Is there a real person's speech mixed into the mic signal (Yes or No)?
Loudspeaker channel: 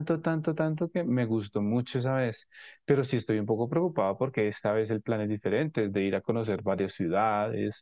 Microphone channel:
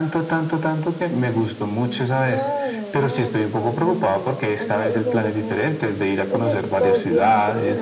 Yes